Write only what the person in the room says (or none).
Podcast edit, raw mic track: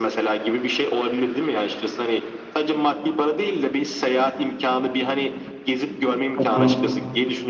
Hı hı.